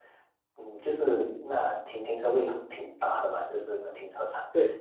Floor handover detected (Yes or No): No